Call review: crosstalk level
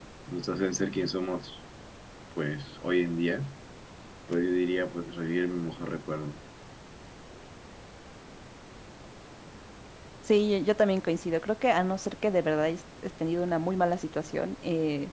none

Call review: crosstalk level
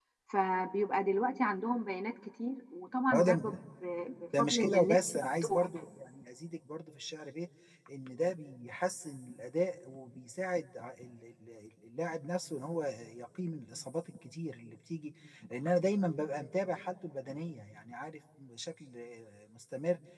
present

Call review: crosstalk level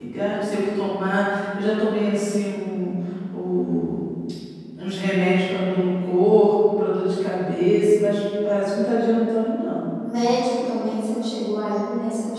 none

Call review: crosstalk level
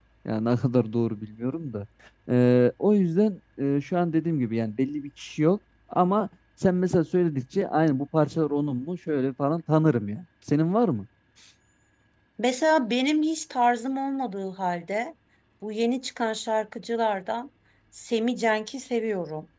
none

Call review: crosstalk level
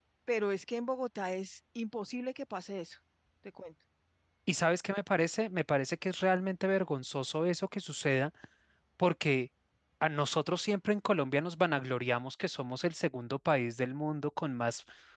none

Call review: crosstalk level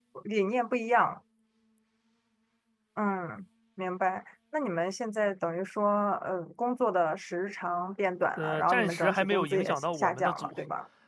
present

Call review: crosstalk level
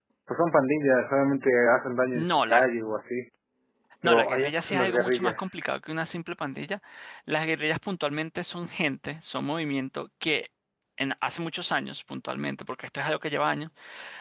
present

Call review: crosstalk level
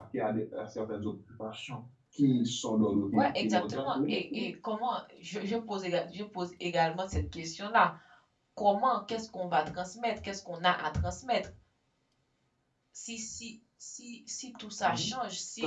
present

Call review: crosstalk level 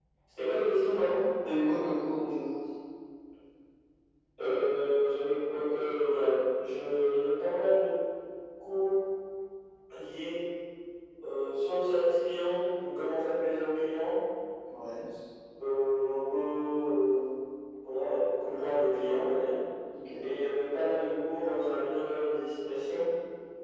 none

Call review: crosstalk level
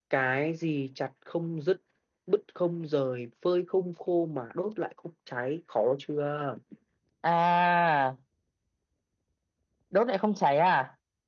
none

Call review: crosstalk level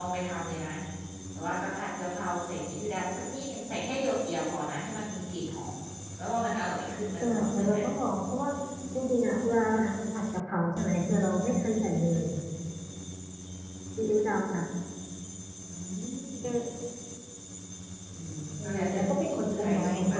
present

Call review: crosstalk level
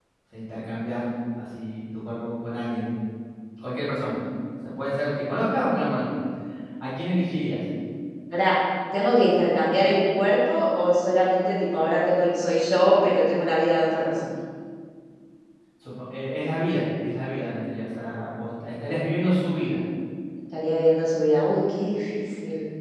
none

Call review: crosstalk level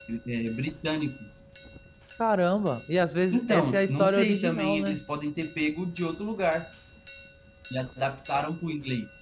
present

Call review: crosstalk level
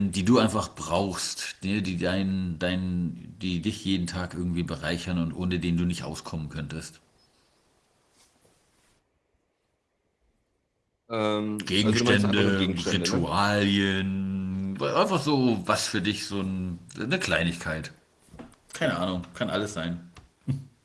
present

